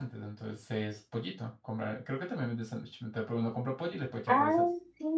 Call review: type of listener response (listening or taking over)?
taking over